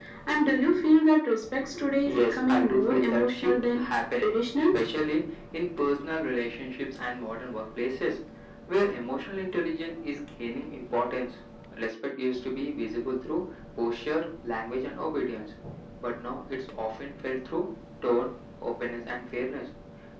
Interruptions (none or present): present